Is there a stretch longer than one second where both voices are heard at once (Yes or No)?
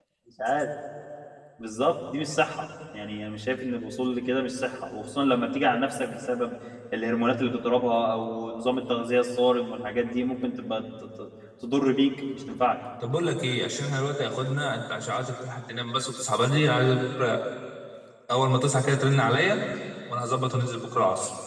No